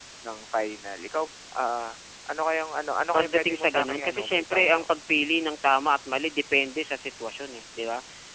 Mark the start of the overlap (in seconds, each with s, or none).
3.1 s